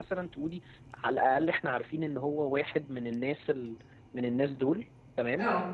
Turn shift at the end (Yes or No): No